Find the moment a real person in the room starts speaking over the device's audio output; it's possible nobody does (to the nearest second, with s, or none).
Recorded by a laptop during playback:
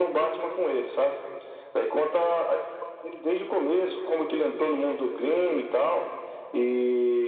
none